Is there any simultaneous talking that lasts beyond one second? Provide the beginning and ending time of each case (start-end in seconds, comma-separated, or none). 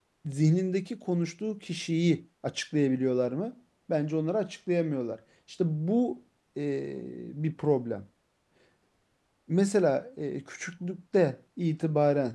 none